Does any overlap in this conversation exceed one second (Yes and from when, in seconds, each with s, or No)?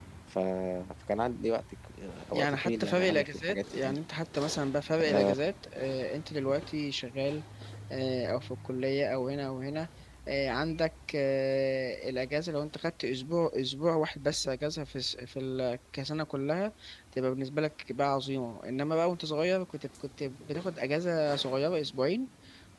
Yes, from 2.3 s